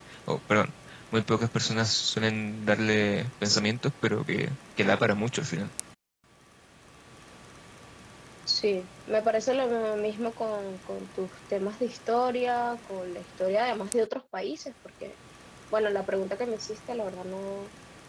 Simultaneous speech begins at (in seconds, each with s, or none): none